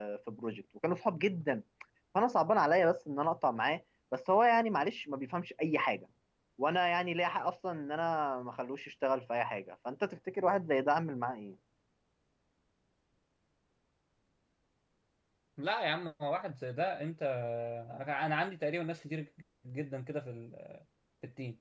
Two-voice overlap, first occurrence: none

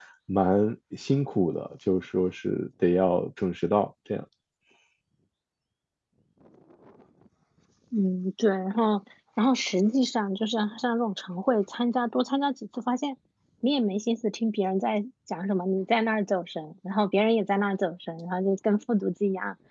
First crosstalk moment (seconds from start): none

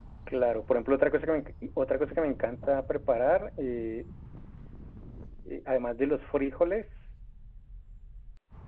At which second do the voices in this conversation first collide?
none

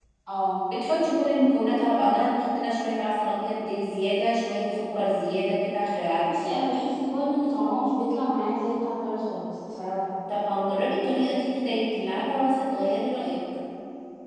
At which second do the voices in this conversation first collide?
none

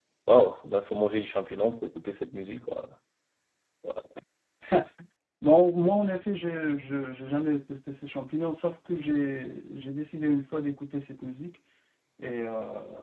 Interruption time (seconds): none

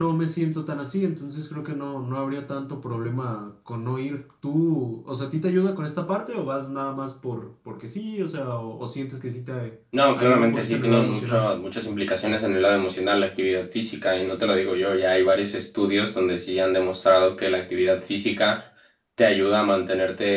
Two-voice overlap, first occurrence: 10.2 s

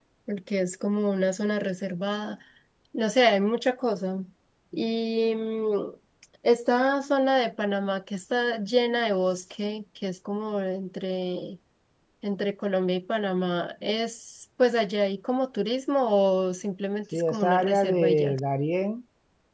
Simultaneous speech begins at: 17.1 s

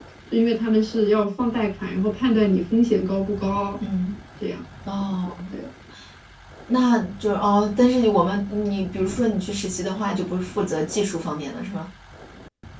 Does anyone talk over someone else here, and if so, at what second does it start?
none

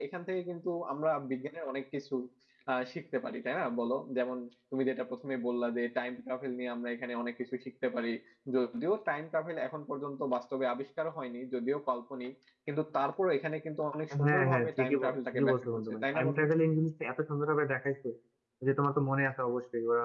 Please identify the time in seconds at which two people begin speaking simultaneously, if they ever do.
14.1 s

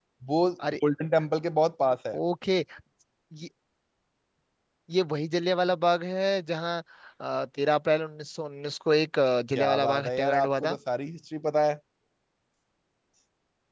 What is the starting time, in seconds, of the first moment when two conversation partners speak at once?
9.6 s

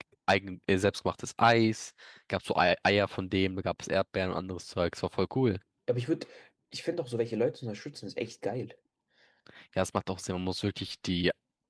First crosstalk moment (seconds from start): none

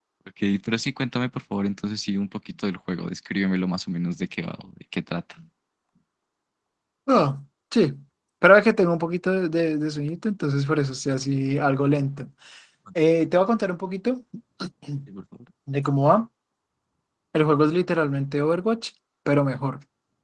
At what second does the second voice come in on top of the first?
none

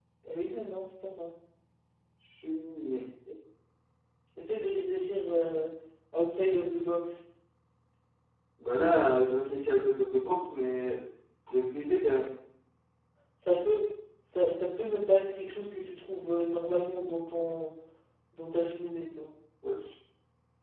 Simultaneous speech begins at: none

